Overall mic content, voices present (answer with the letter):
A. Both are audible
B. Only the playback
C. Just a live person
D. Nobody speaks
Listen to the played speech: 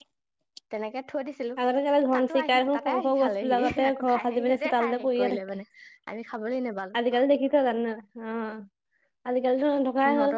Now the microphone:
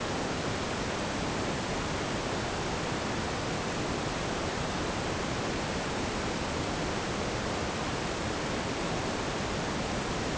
D